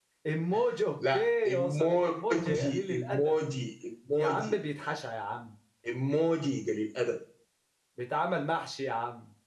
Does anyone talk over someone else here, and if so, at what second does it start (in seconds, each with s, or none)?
1.1 s